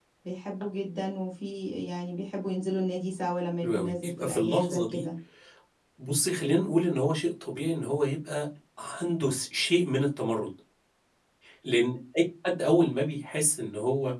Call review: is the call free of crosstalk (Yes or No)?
No